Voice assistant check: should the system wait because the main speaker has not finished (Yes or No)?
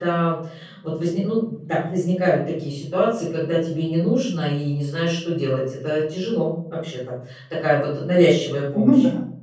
No